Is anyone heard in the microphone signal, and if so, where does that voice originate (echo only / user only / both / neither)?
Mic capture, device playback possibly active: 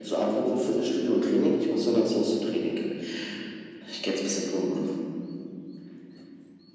echo only